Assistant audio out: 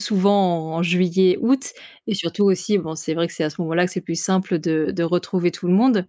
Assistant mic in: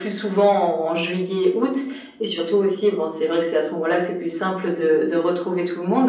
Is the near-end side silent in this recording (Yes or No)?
Yes